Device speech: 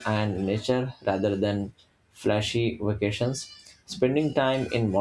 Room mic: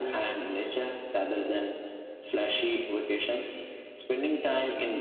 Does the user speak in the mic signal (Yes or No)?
No